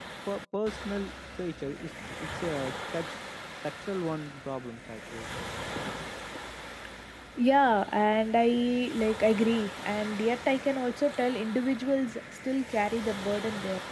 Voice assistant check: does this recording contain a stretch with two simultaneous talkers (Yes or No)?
No